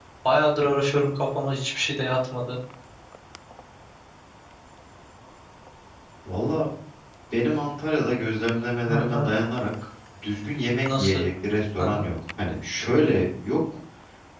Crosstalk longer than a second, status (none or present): none